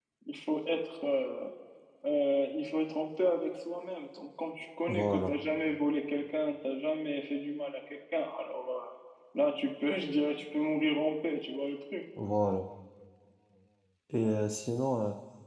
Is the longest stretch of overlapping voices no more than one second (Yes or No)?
Yes